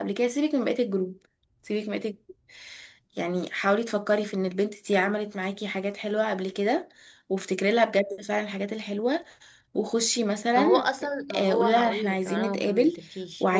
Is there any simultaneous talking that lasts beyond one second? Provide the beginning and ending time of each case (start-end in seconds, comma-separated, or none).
11.3-12.9